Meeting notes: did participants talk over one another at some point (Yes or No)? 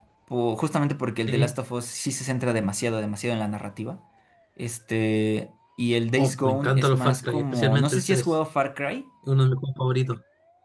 Yes